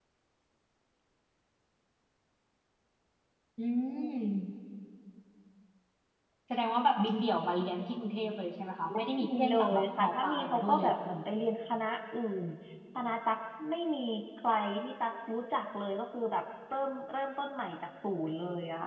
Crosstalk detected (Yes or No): Yes